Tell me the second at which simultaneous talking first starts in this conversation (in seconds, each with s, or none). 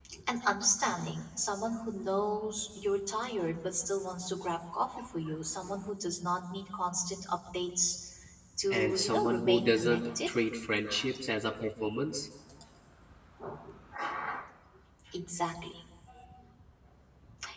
8.7 s